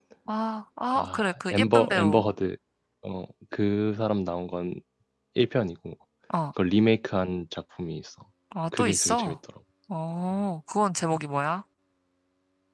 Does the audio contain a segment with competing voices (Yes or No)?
Yes